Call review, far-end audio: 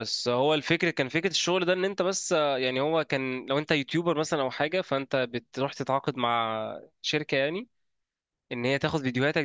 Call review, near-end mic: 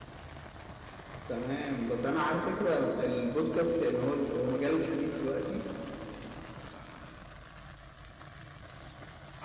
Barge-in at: 1.3 s

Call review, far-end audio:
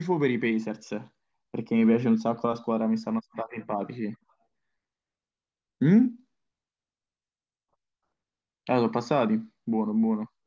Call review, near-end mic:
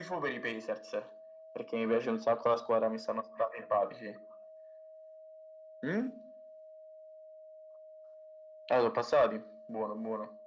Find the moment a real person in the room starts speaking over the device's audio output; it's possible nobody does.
none

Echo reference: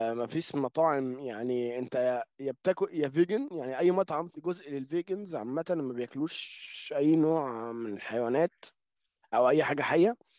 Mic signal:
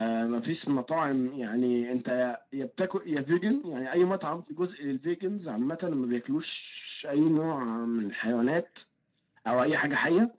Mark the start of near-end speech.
none

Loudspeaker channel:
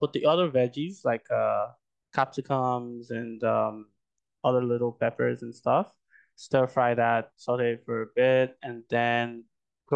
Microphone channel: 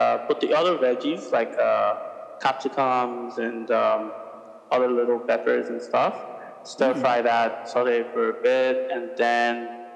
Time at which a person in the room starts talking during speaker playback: 6.8 s

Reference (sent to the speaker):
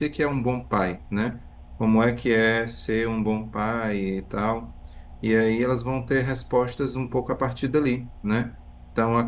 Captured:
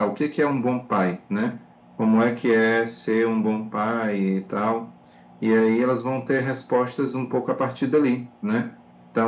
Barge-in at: none

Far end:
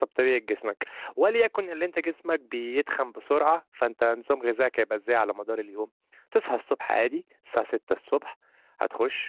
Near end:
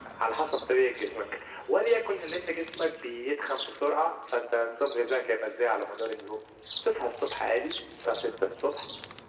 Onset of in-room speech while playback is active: none

